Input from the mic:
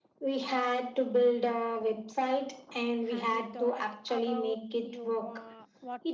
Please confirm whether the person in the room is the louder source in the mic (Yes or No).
No